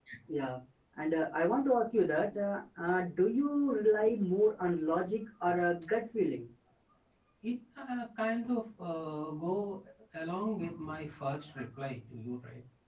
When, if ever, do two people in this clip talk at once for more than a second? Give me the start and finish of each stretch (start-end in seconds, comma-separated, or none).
none